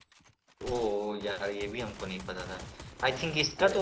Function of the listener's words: listening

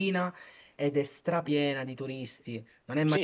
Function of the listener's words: taking over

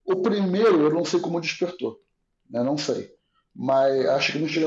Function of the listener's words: listening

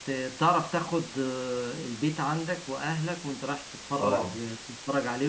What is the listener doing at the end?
listening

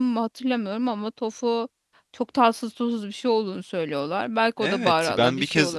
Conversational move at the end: taking over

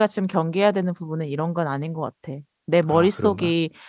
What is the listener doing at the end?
listening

